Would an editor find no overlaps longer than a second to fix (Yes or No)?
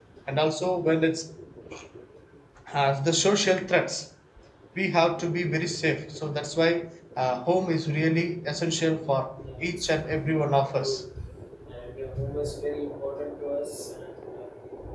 No